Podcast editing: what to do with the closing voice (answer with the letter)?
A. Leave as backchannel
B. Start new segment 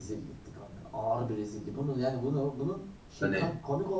A